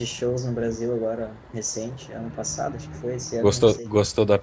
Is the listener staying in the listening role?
No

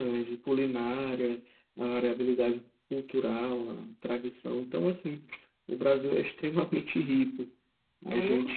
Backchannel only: Yes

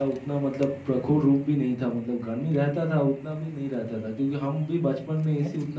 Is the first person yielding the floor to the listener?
No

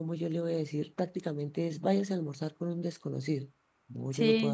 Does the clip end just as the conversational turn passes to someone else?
Yes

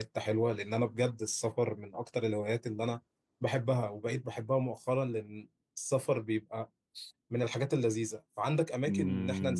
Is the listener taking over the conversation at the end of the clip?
Yes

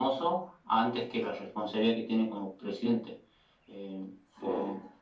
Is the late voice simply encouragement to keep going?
Yes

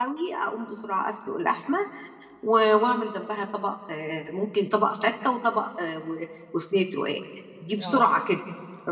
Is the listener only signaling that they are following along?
Yes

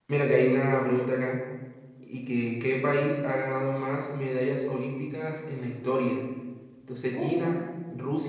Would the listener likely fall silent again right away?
Yes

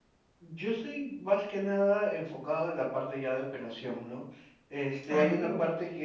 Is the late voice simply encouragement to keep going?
Yes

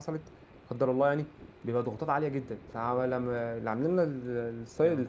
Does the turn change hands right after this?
No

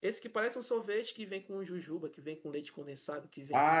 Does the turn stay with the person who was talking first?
No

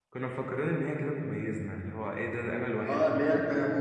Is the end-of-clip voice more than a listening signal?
Yes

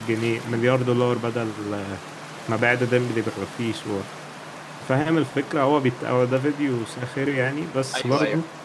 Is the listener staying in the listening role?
Yes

